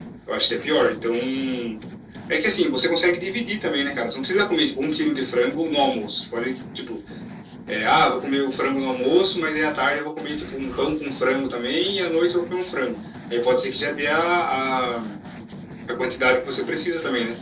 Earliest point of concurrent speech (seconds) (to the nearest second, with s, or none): none